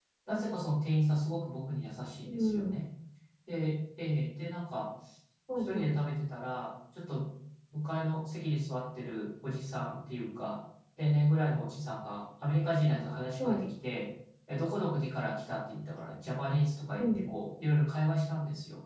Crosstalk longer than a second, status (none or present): none